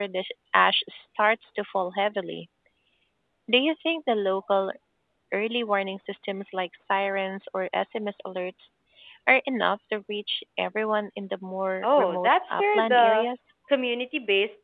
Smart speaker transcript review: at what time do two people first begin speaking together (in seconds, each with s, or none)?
11.8 s